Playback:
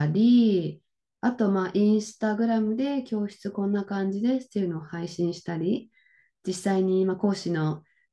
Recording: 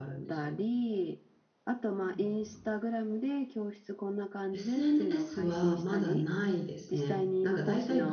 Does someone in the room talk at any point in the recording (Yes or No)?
Yes